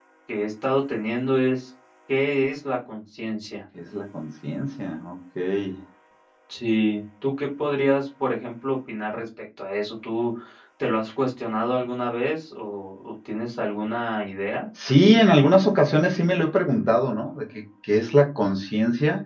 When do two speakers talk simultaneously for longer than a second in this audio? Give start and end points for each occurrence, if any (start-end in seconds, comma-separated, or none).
none